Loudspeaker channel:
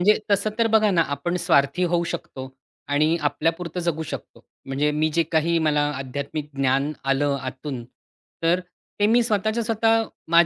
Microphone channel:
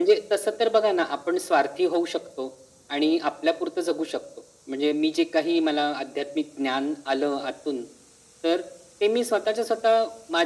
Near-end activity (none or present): none